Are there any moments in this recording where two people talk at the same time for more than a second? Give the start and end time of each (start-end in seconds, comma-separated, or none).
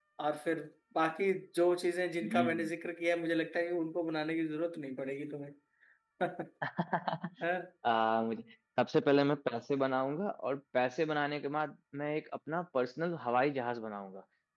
none